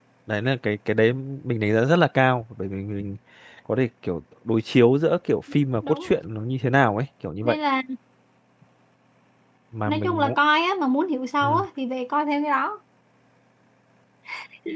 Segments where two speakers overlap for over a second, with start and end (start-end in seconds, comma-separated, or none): none